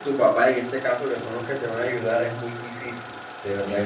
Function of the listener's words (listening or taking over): taking over